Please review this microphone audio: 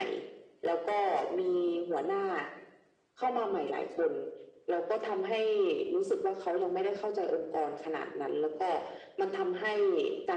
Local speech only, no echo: none

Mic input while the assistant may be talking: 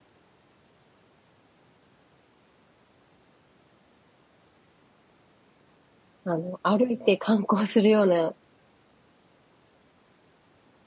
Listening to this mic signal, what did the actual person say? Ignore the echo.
あの、歩いて観光するような、

